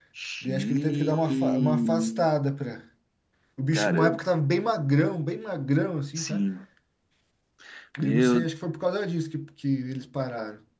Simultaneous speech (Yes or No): Yes